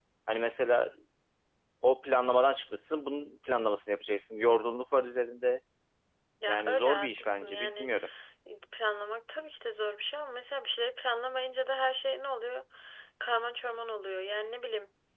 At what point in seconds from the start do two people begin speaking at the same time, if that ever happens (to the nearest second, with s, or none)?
6 s